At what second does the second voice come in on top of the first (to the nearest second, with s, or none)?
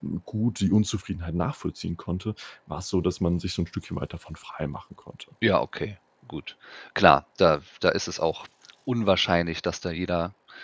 none